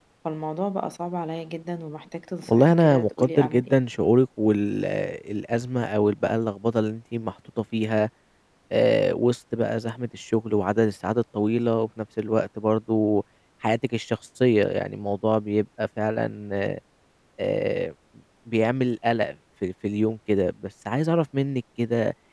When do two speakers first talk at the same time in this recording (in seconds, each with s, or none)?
2.5 s